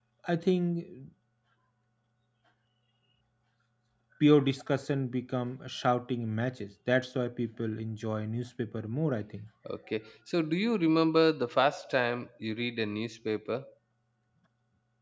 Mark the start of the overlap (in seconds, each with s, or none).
none